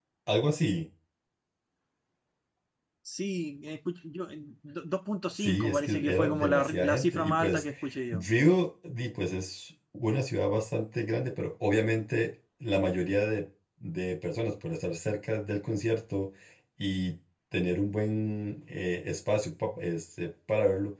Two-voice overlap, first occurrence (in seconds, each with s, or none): 5.4 s